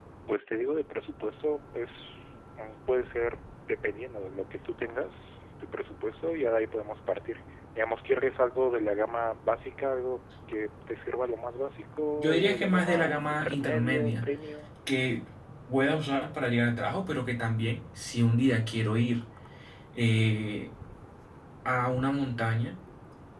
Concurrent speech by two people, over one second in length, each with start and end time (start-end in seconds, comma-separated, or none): 12.2-14.3